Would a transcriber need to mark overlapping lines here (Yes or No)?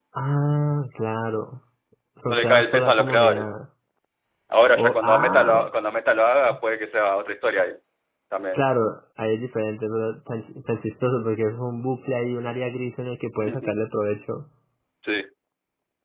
Yes